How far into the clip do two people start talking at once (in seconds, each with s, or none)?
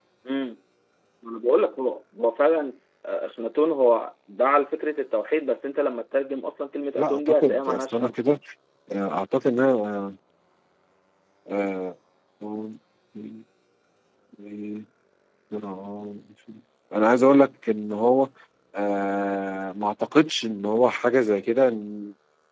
7.0 s